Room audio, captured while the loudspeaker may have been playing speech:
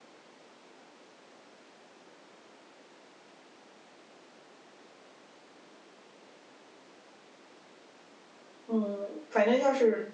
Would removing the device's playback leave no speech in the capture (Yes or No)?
No